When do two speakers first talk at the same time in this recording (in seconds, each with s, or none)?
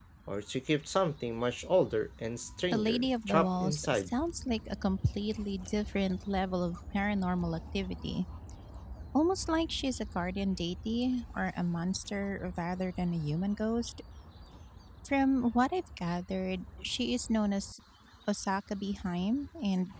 2.7 s